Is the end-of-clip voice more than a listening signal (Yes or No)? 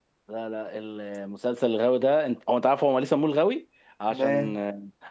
No